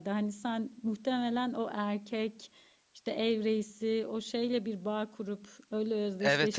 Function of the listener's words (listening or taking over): taking over